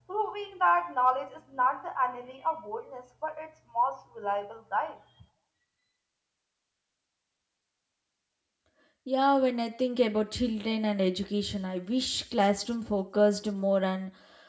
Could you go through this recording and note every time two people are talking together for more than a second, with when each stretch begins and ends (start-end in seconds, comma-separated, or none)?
none